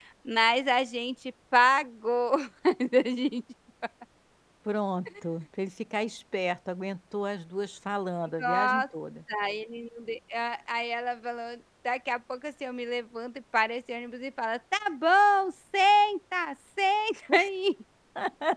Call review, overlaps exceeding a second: none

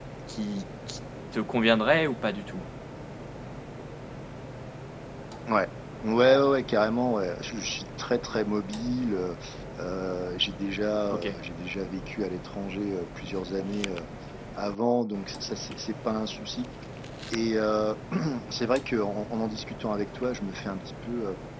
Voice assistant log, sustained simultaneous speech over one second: none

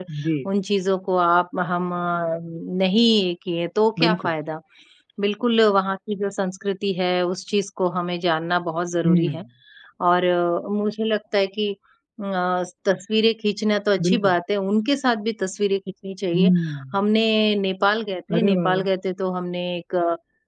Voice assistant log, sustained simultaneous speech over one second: none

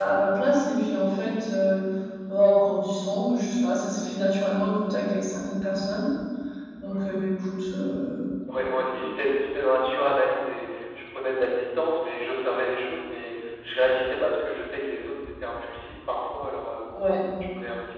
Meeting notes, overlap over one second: none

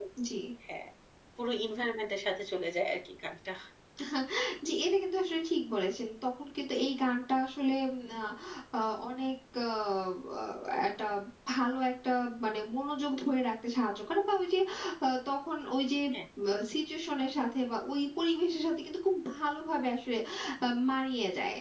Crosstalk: none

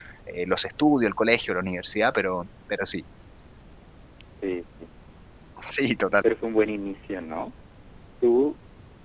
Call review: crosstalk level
none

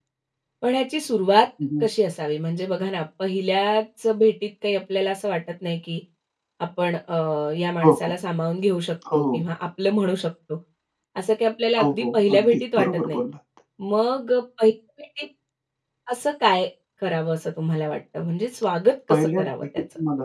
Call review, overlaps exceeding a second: present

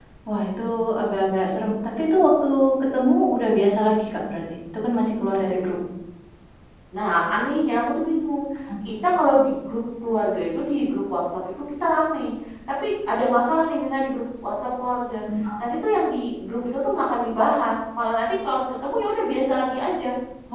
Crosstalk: none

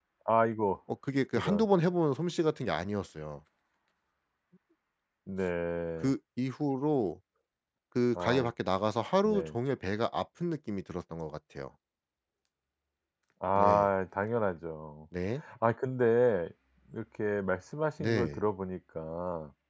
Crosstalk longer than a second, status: none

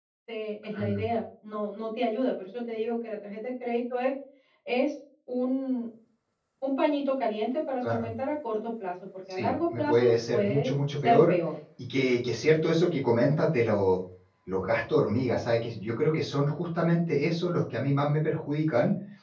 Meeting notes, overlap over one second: present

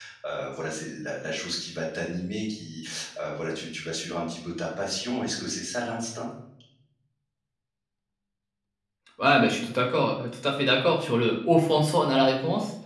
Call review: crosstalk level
none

